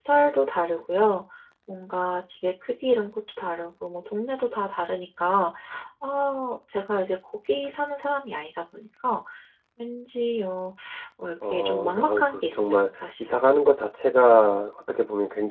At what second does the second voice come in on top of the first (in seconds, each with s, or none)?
11.4 s